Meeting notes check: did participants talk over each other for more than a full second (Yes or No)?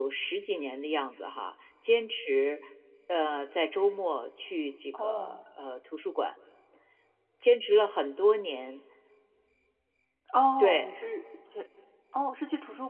No